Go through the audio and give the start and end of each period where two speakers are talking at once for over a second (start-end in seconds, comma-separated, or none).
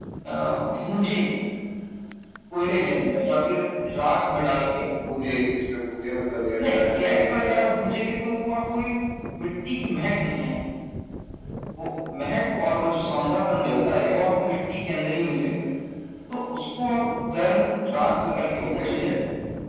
6.6-7.9